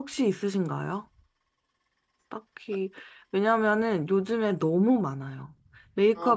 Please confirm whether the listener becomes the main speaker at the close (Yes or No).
No